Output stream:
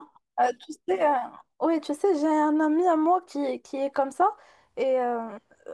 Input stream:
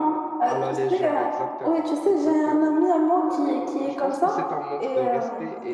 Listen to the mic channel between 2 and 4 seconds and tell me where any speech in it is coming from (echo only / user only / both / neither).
both